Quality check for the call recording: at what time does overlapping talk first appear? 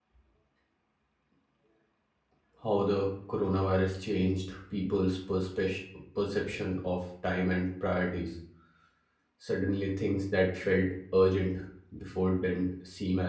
none

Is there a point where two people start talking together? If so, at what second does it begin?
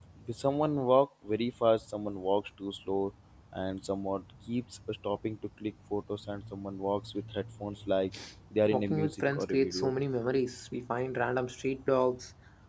8.7 s

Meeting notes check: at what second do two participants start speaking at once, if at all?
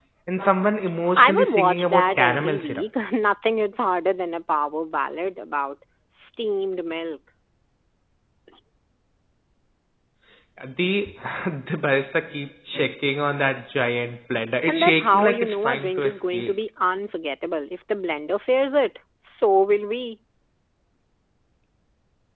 1.2 s

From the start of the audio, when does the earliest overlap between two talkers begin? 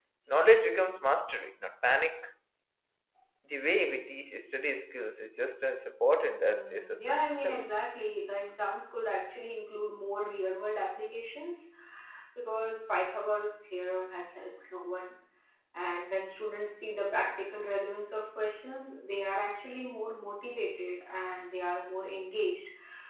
6.5 s

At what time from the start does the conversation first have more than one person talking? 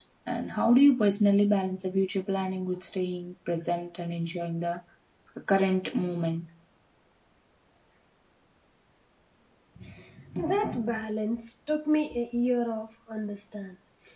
none

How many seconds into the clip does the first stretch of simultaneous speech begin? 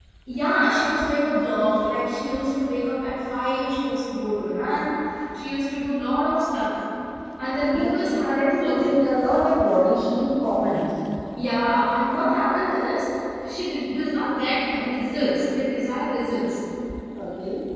7.7 s

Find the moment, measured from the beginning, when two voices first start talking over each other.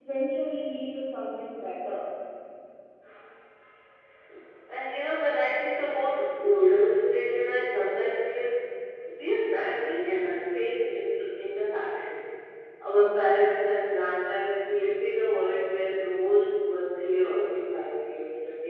none

